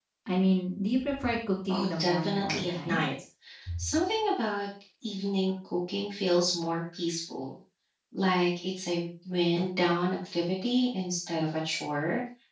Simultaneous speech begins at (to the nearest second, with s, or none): 2 s